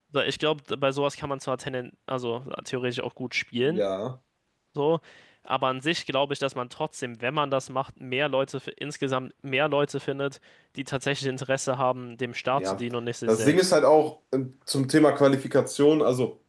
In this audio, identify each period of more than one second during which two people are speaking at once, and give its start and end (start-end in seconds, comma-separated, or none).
none